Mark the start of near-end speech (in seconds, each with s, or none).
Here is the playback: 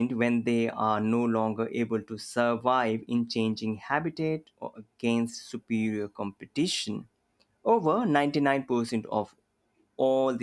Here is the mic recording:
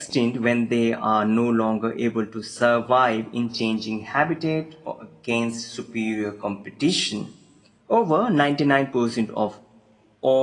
none